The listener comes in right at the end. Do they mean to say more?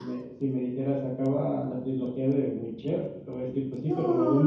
Yes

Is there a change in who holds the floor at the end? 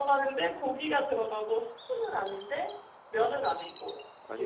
No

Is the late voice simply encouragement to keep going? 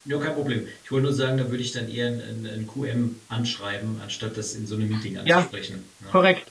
No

